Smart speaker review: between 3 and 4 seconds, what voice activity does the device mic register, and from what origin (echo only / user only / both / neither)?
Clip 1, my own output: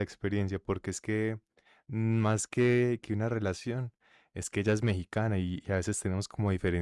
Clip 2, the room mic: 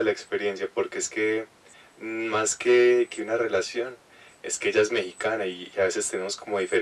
echo only